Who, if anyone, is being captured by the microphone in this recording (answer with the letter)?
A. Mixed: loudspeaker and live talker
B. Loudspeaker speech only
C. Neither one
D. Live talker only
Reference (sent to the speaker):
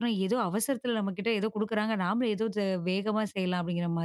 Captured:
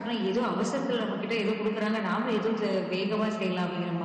B